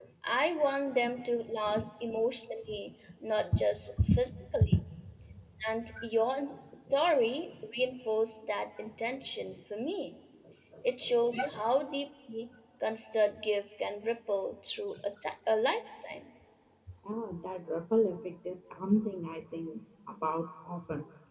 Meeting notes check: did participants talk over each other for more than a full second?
No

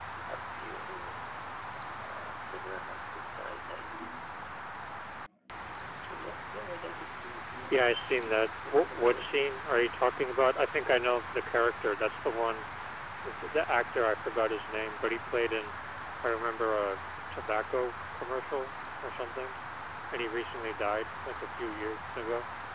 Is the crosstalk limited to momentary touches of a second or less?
No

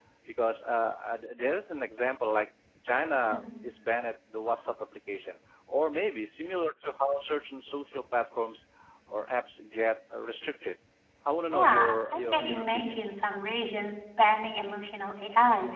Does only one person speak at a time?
No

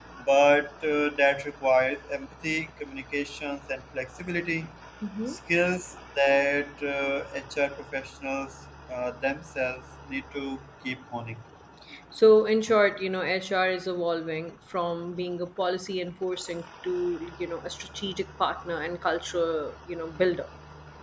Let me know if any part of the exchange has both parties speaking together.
No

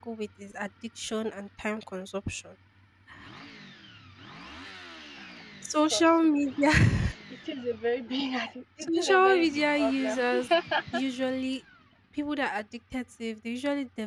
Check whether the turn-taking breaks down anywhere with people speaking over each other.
Yes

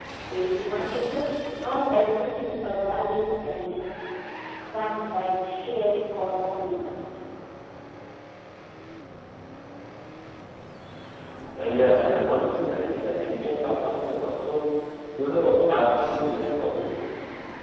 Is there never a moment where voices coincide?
Yes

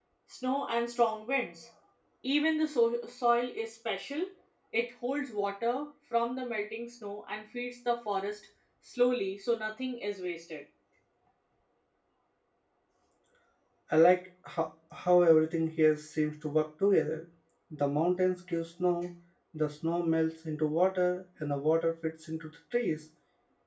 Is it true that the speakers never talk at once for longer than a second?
Yes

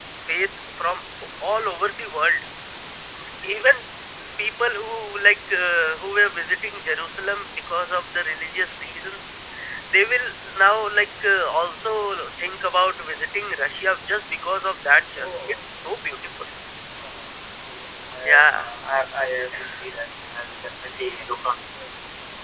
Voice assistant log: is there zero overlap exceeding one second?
Yes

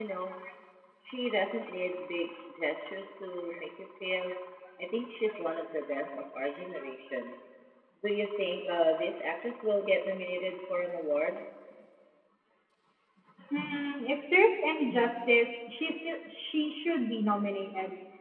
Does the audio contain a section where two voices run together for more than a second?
No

